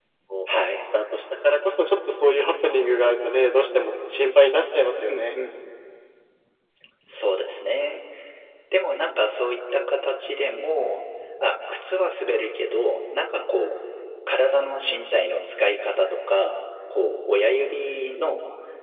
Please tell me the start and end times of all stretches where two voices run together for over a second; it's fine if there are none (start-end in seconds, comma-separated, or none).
none